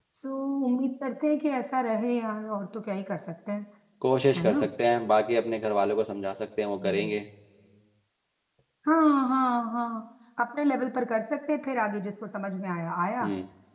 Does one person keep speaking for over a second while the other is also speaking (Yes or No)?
No